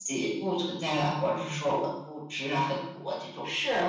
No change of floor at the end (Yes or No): No